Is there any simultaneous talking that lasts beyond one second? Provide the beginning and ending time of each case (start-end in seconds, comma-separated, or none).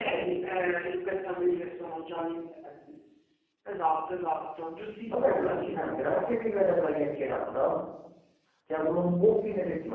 5.1-6.4